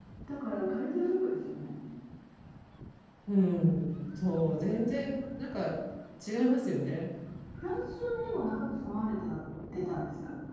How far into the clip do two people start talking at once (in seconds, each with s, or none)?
none